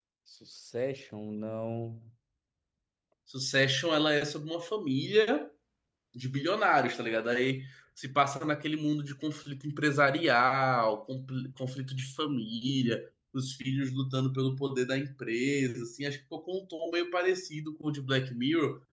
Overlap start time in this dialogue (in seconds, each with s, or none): none